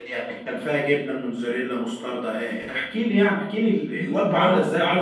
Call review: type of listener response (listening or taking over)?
taking over